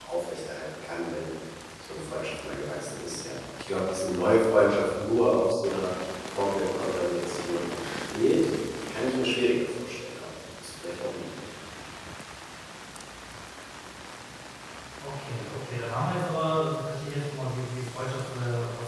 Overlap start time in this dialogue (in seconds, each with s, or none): none